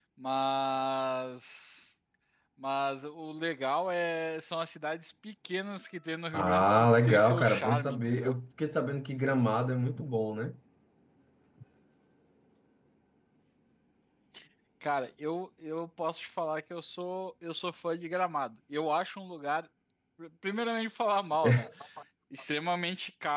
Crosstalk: present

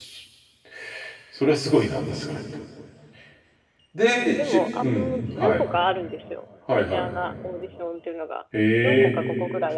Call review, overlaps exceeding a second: present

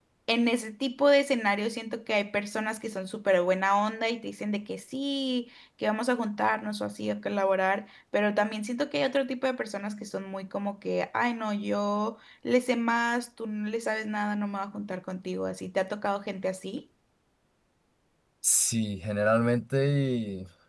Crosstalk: none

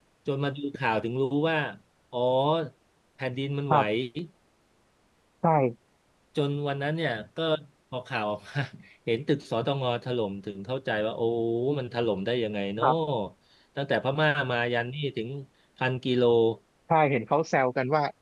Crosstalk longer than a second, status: none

